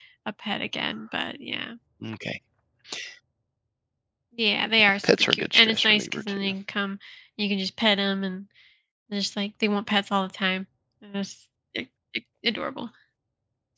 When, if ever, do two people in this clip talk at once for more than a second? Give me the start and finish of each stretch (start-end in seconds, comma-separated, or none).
5.0-6.5